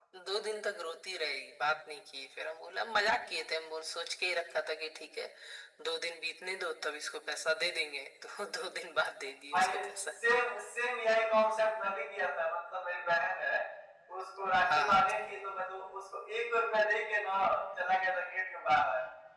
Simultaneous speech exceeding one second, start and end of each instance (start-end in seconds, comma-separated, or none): none